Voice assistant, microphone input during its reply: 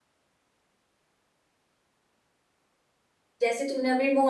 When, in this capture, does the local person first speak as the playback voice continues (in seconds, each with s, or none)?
3.4 s